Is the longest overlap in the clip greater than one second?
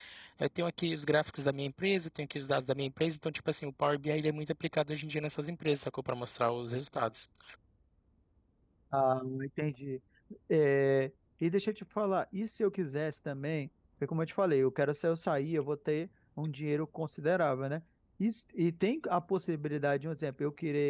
No

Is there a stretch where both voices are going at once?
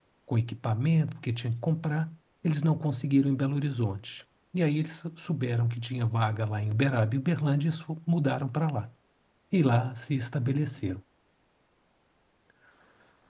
No

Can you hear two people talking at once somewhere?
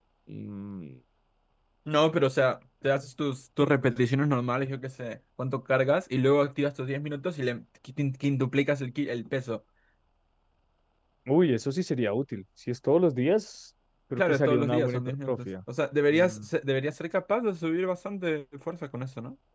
Yes, from 14.2 s

